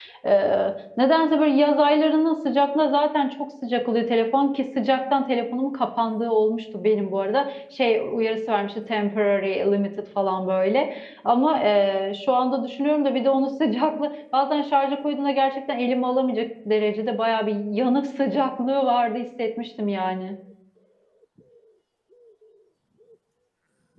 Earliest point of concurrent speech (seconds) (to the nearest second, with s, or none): none